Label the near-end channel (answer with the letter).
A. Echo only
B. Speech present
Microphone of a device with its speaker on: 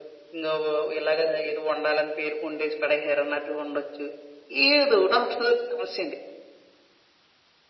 A